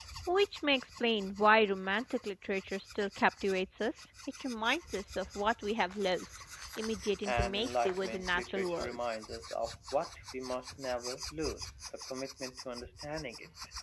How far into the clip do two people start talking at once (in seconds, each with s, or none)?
7.2 s